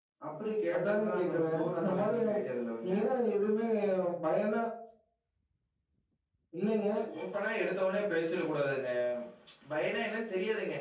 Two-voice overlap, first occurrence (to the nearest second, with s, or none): 1 s